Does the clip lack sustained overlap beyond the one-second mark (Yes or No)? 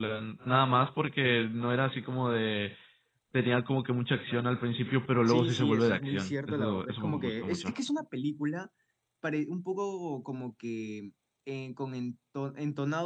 No